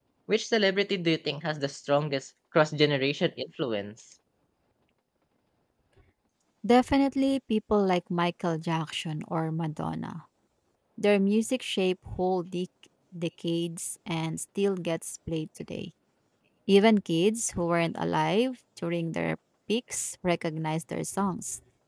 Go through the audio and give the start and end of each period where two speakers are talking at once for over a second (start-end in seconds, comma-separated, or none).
none